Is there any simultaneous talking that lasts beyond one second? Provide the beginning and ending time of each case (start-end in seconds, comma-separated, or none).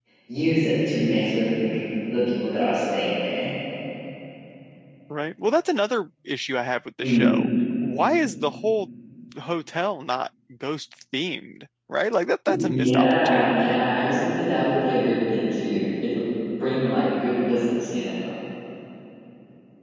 12.5-13.8